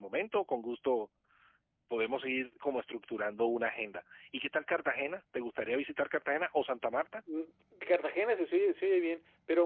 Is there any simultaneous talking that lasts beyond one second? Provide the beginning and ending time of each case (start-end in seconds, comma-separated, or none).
none